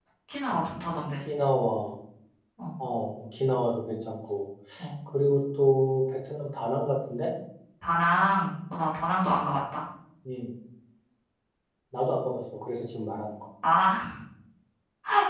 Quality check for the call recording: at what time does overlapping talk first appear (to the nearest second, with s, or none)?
none